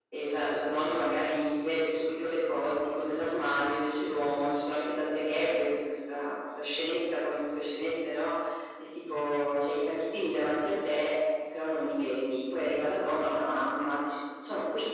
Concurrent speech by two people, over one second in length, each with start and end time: none

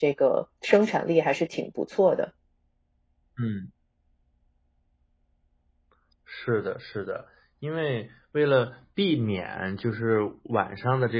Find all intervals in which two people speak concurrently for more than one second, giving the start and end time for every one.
none

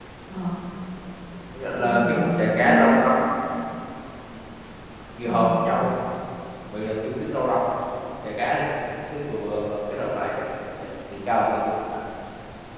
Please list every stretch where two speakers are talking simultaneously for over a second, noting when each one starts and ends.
1.8-3.1

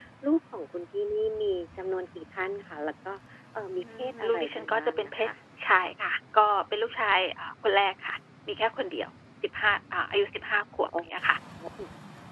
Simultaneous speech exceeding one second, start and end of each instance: 3.8-5.3

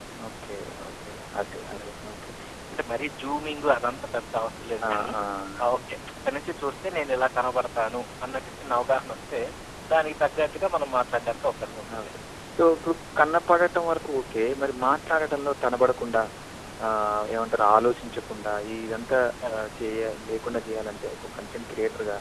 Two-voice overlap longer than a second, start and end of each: none

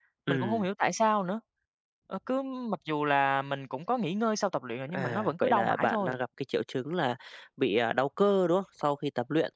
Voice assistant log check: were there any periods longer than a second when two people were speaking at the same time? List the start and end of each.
4.9-6.2

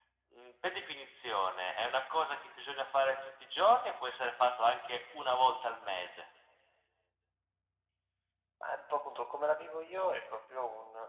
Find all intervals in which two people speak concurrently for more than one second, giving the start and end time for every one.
none

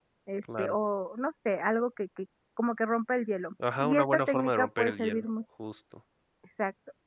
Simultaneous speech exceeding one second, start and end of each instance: 3.8-5.2

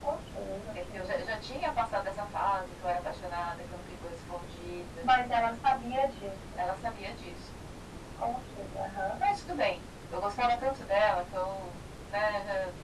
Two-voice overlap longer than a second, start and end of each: none

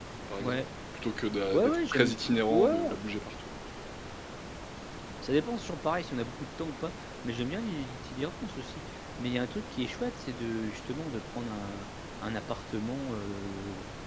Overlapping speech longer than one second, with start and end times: 1.5-3.0

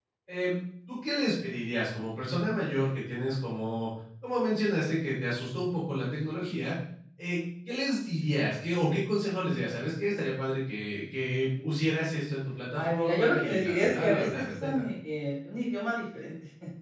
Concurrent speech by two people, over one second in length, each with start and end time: 12.8-14.9

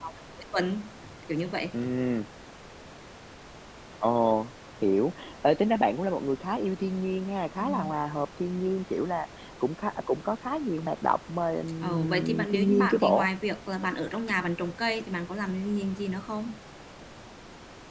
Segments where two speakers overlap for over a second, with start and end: 11.8-13.3

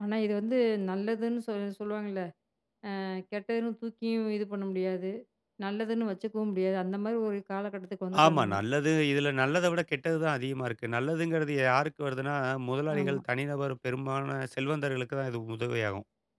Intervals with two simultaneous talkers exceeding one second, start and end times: none

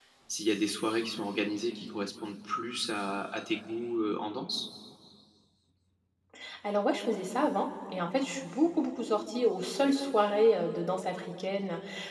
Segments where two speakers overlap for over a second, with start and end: none

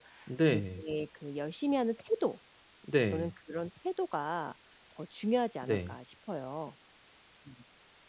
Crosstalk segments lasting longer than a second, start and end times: none

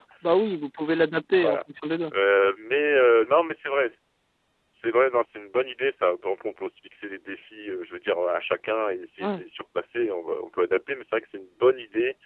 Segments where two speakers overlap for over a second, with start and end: none

